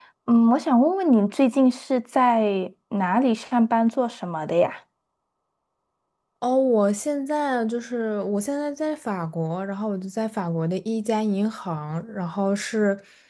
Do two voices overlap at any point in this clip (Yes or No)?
No